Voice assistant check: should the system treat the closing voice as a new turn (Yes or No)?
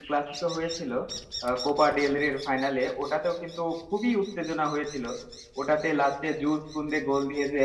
No